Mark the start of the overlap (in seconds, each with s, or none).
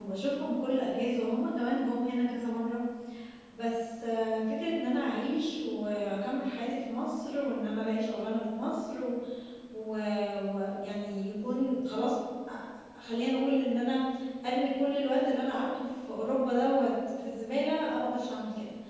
none